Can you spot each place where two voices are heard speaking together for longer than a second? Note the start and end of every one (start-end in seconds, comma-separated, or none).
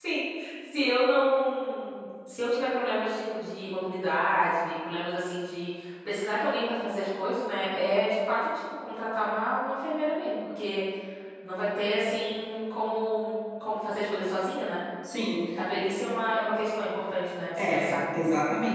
none